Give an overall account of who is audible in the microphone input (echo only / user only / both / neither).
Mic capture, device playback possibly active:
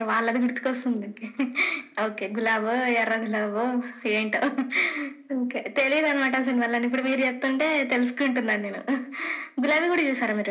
echo only